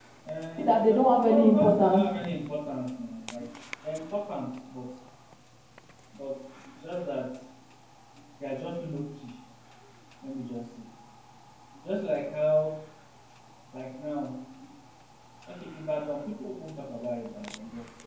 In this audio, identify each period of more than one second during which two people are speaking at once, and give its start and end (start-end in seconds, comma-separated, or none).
0.6-2.2